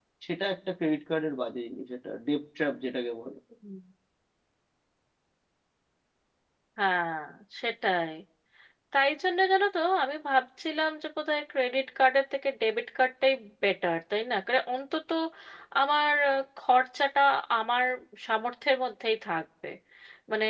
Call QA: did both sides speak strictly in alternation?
Yes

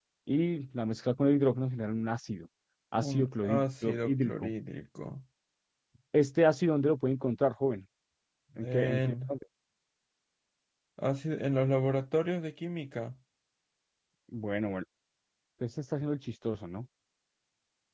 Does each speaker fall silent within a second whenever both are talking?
No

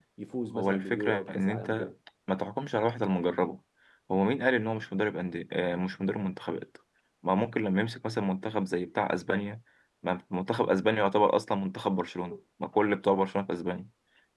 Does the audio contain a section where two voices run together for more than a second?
Yes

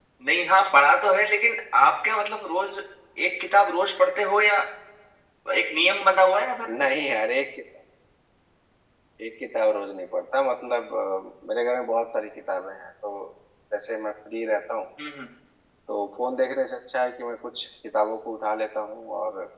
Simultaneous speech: No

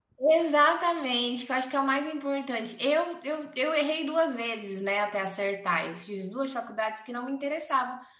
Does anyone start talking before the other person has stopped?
No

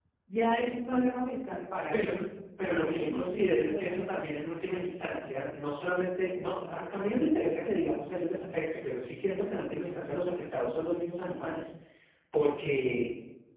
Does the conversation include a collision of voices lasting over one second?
Yes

